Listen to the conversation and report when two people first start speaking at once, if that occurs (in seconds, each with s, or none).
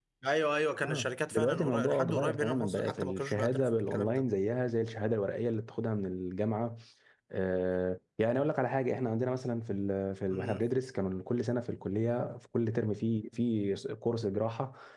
0.8 s